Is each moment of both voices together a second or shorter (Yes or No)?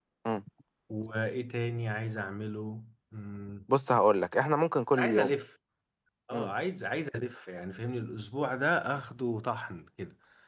Yes